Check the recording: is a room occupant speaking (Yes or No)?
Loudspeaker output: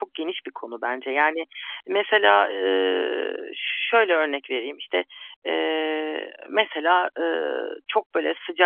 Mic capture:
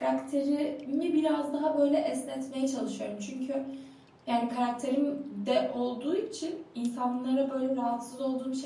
Yes